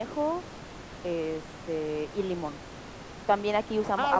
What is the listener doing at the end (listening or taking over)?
taking over